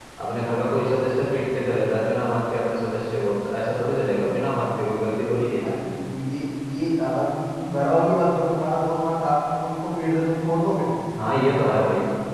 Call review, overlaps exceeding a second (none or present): none